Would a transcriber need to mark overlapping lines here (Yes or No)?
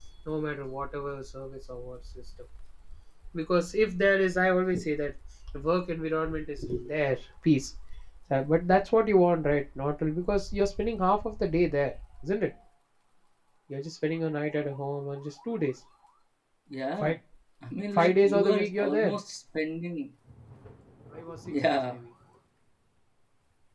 Yes